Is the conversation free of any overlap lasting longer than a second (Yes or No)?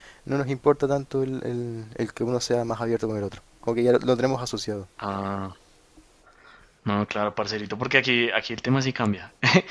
Yes